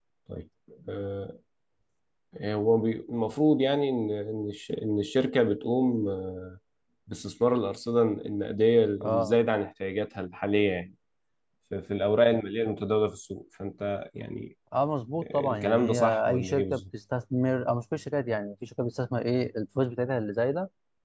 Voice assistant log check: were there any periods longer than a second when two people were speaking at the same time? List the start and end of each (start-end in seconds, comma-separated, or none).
15.2-16.8